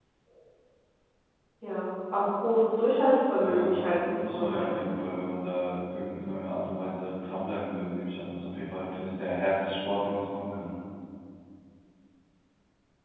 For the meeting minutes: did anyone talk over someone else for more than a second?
Yes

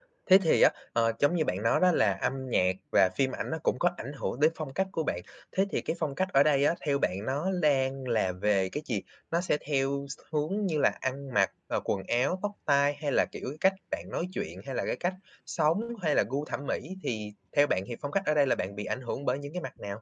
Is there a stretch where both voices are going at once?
No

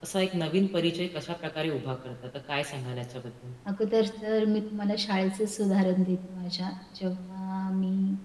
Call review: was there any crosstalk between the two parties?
No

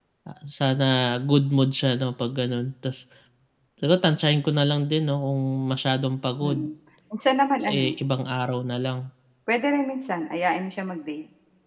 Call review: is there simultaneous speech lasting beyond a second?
No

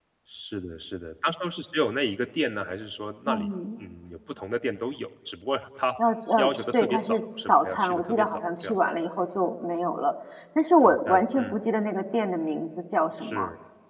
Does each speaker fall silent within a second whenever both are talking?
No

